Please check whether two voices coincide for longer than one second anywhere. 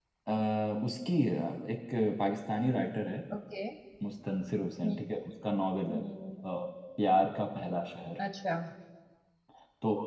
No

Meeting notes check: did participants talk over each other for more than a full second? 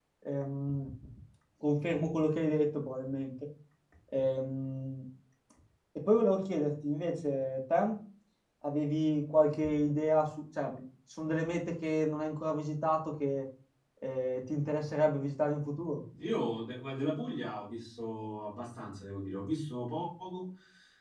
No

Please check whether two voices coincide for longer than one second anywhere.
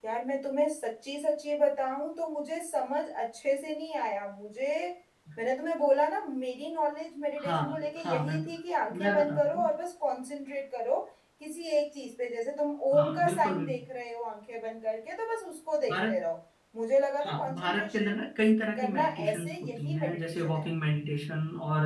Yes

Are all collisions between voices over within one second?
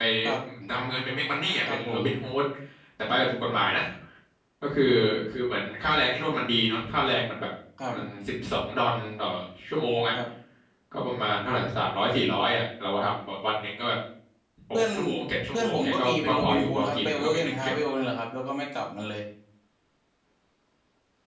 No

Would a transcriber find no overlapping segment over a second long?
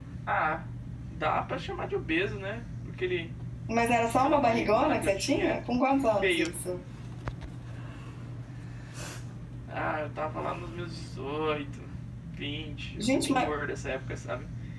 No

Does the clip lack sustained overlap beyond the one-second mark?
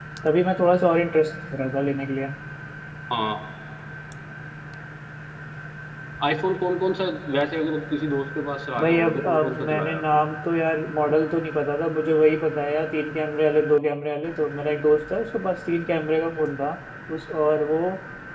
No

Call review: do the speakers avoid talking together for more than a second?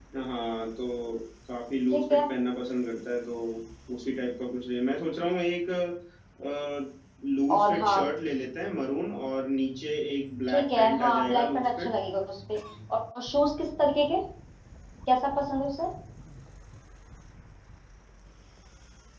No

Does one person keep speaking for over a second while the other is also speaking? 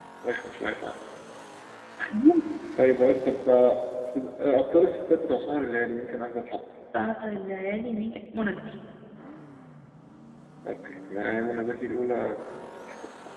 No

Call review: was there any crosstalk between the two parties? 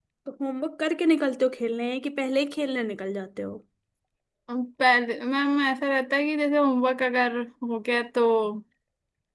No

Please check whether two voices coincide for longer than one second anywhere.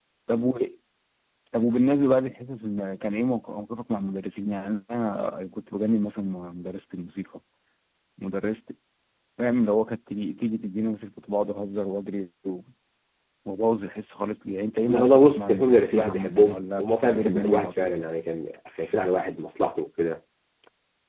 Yes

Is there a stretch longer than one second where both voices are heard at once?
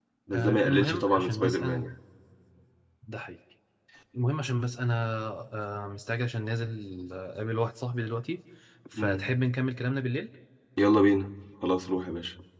Yes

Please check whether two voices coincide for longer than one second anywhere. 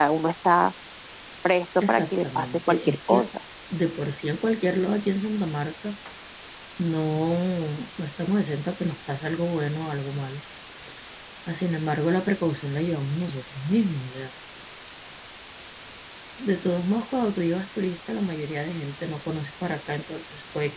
Yes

